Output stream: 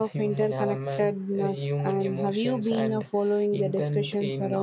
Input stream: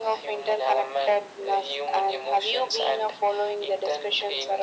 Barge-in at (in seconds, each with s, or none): none